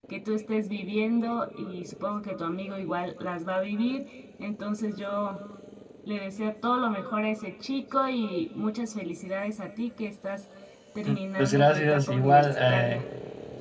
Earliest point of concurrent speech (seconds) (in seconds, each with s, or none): 11.1 s